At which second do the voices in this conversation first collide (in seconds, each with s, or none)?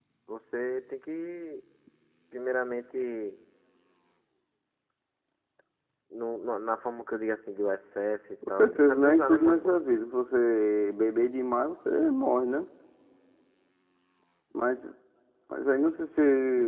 8.4 s